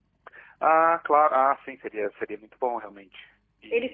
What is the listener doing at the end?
taking over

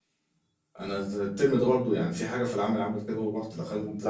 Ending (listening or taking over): listening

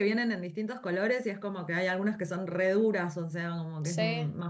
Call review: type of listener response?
taking over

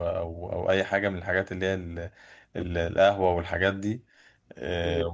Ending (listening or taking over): listening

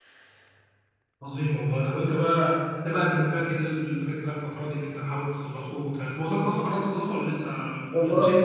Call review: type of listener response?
taking over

